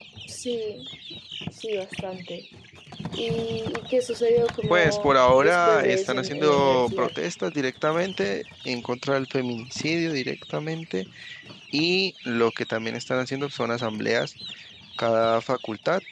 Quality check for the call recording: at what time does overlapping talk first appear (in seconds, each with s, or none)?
4.7 s